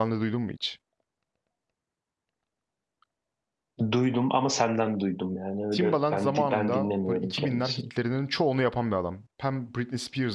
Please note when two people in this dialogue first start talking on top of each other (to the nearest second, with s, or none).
6 s